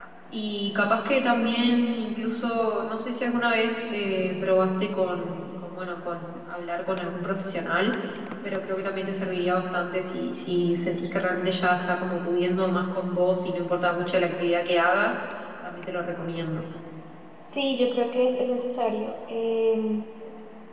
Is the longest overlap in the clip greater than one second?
No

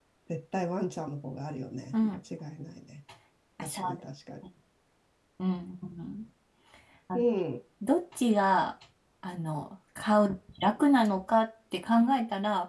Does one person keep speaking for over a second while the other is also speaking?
No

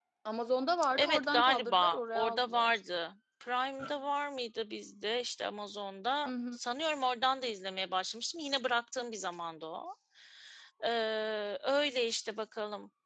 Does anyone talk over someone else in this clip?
Yes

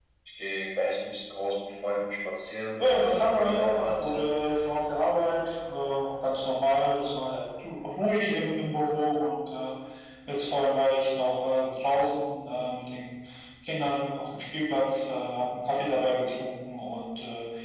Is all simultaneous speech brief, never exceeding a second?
No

